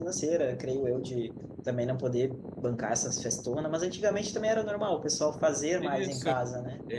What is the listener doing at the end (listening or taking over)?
taking over